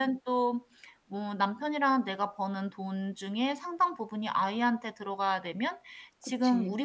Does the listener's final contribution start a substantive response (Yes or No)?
No